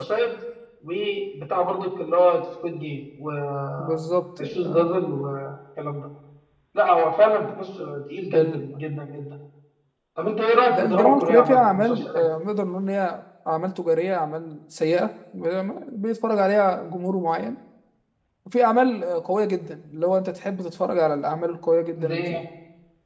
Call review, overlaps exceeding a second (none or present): present